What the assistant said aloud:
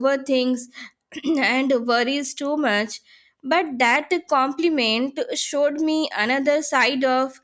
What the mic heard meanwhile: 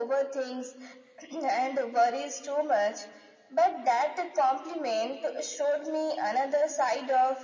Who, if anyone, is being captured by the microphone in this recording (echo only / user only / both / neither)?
echo only